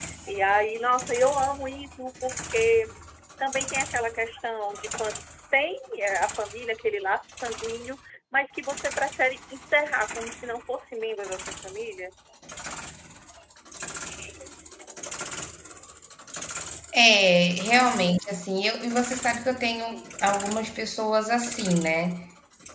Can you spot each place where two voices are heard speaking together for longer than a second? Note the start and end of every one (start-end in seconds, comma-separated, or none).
none